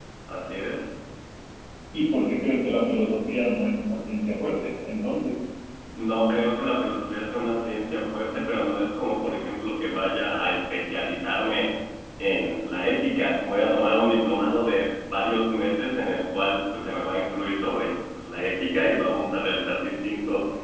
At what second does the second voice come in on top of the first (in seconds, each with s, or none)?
none